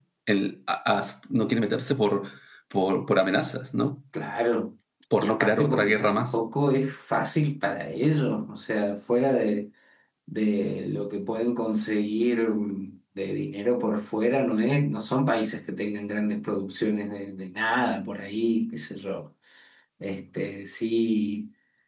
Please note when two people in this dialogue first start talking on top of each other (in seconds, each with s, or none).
5.1 s